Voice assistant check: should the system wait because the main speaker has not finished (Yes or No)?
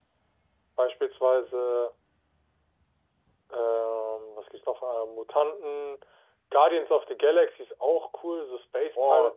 No